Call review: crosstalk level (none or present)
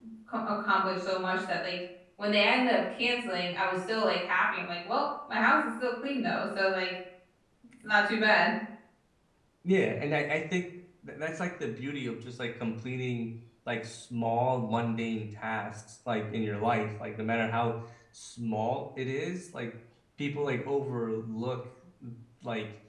none